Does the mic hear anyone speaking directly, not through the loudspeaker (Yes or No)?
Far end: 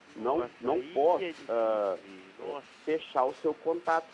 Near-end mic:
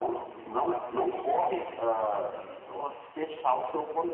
No